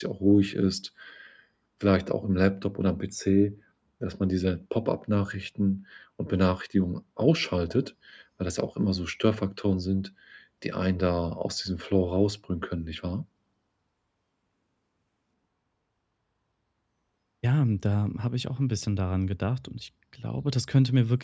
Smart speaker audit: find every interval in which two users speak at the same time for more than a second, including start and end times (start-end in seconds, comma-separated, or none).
none